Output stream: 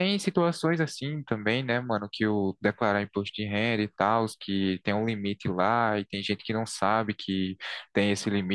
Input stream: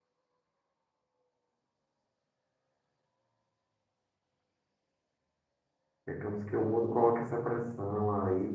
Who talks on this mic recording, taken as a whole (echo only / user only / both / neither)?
user only